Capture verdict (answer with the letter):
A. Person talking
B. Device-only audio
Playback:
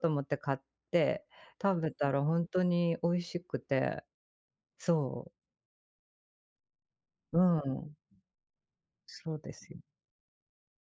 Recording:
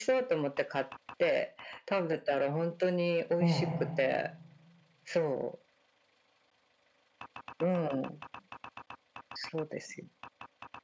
A